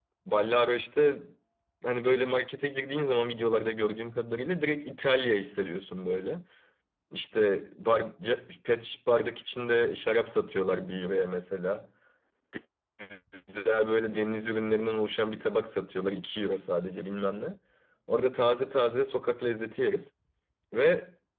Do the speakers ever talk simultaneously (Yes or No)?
No